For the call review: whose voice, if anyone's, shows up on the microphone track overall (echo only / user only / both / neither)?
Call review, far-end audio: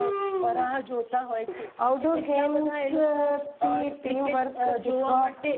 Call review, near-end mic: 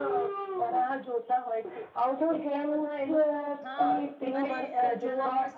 both